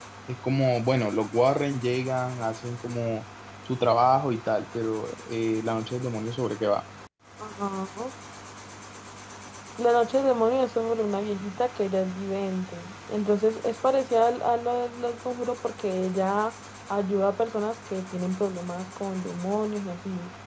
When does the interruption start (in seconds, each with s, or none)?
none